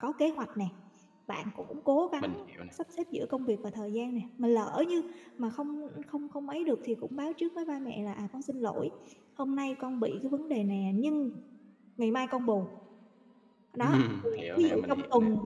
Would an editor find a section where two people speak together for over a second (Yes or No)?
Yes